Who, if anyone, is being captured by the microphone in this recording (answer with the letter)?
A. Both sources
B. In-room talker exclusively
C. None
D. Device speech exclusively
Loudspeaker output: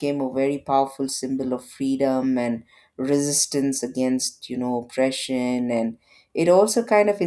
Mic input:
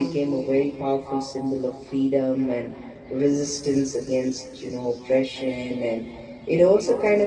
D